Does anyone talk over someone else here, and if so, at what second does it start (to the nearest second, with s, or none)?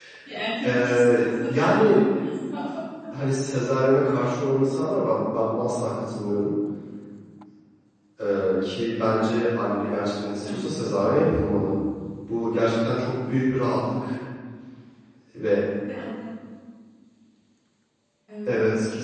1 s